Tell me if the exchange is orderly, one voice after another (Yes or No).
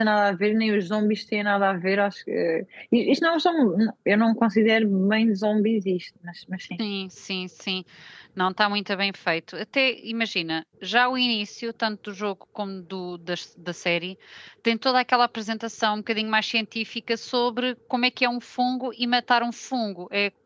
Yes